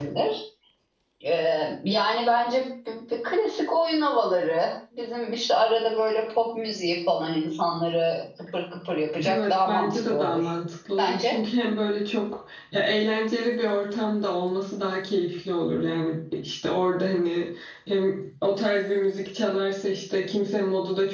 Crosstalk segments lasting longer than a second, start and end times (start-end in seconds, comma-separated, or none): 9.3-10.5